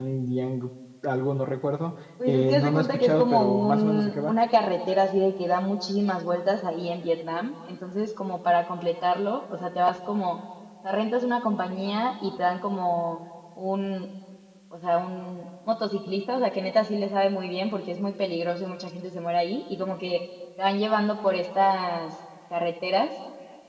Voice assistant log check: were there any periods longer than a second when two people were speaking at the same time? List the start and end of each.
2.3-4.3

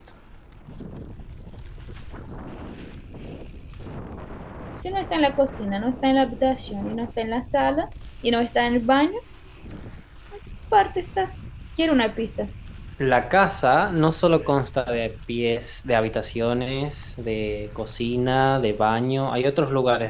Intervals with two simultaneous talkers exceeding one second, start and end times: none

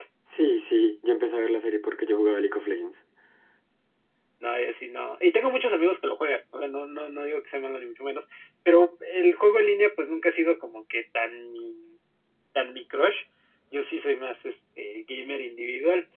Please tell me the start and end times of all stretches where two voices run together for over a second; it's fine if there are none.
none

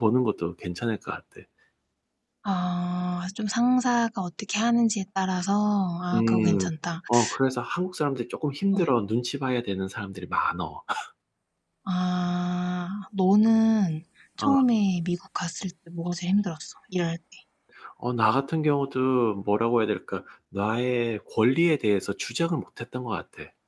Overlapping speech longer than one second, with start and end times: none

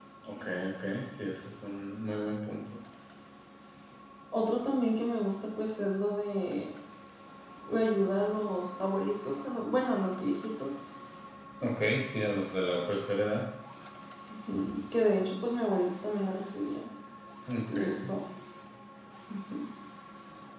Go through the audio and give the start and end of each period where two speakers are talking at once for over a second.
none

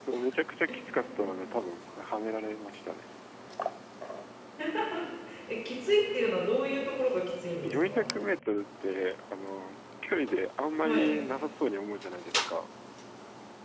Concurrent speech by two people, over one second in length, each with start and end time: none

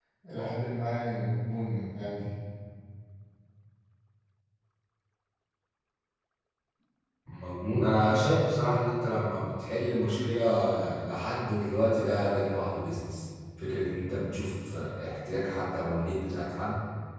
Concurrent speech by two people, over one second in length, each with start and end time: none

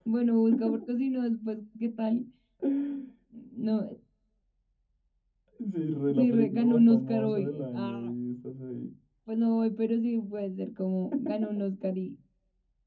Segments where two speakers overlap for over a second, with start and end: 6.1-8.1

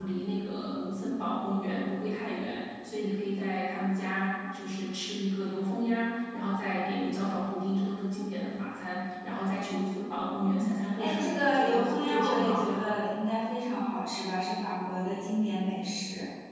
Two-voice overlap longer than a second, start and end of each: 10.3-12.8

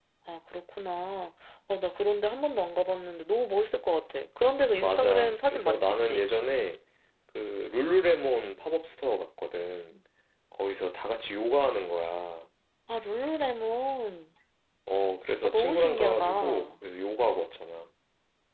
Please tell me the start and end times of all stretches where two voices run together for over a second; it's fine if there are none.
4.8-6.3, 15.4-16.7

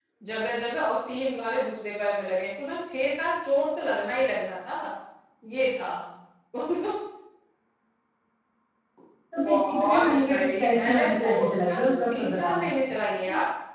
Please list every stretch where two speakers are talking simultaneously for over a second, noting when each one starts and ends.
9.4-12.6

